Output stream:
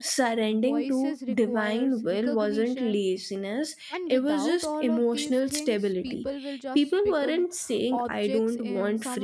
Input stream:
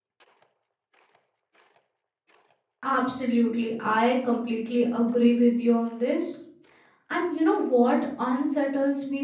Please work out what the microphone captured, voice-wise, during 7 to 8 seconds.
user only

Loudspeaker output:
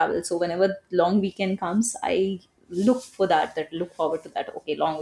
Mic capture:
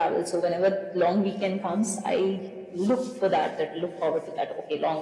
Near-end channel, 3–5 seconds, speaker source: echo only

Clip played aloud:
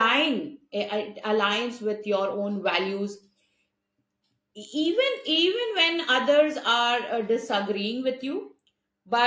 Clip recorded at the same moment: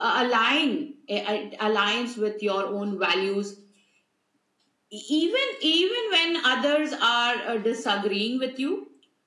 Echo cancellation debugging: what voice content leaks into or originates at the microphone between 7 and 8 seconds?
echo only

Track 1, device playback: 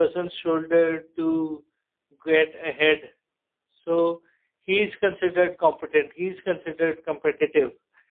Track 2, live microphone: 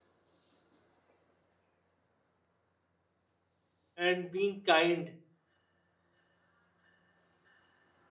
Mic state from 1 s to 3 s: neither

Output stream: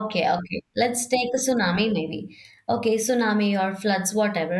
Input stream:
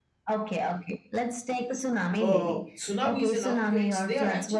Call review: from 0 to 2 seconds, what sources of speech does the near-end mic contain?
echo only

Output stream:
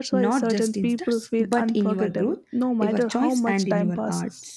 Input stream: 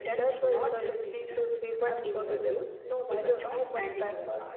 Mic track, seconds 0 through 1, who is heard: echo only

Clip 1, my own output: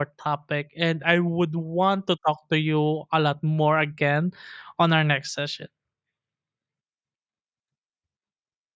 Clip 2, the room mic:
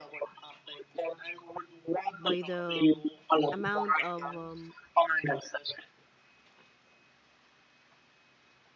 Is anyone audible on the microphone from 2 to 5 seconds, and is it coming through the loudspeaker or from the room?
both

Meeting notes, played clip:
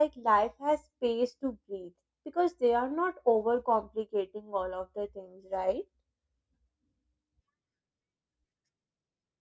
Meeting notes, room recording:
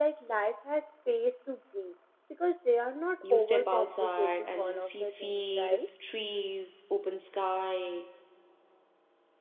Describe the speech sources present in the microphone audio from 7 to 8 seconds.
user only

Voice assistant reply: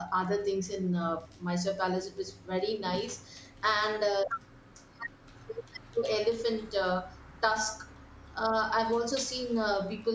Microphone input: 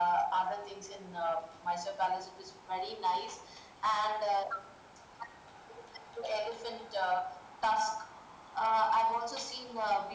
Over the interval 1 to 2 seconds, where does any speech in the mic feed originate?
echo only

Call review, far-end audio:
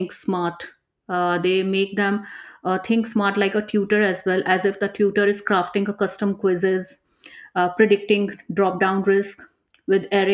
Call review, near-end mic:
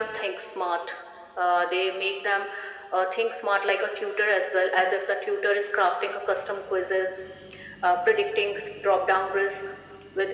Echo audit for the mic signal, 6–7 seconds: echo only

